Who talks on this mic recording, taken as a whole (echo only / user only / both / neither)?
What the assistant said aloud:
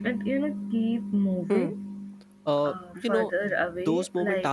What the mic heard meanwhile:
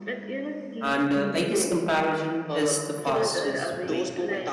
both